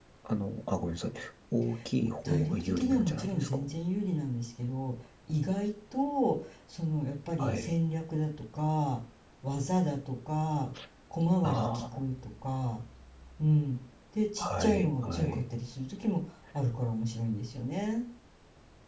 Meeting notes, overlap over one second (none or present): present